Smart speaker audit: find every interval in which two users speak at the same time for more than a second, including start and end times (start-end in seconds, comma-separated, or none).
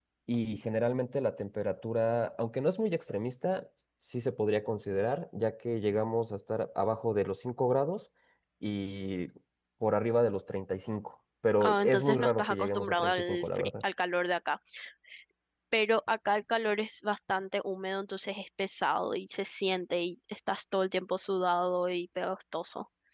11.6-13.8